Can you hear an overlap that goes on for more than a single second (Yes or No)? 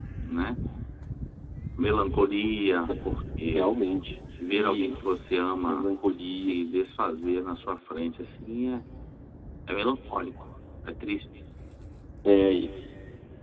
No